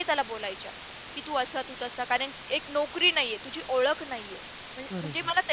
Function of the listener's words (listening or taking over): listening